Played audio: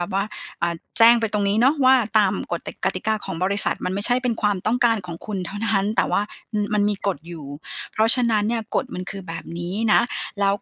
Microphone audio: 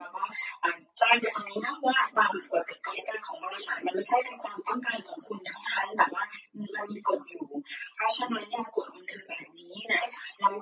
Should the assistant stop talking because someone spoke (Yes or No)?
No